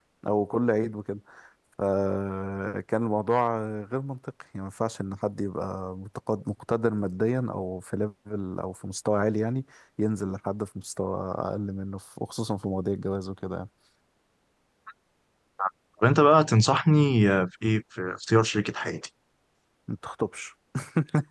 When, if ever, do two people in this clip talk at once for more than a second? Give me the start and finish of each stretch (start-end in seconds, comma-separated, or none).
none